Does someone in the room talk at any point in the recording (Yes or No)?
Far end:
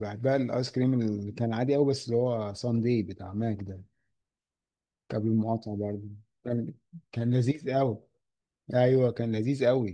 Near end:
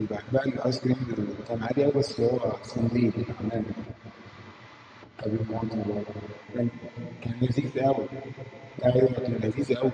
No